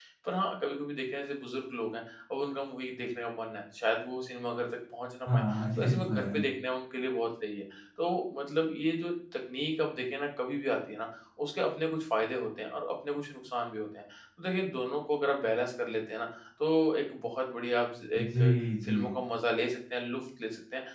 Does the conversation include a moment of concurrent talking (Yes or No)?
Yes